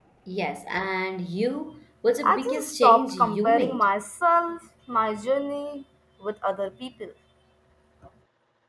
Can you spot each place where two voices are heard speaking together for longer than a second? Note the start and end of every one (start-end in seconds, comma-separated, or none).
2.2-3.9